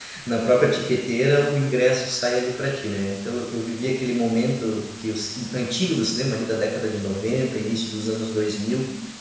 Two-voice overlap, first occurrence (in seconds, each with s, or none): none